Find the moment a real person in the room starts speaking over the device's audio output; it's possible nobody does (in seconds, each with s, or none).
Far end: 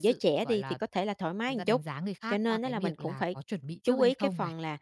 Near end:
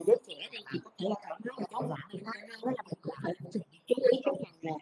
none